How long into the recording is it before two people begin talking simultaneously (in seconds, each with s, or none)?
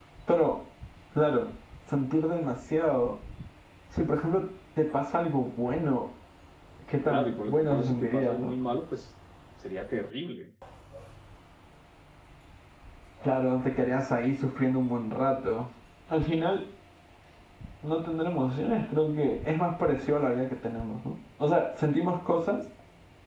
7.1 s